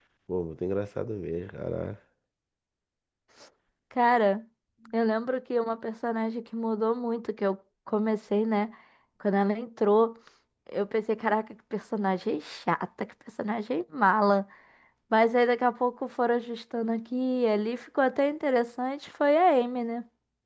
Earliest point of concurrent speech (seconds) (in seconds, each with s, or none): none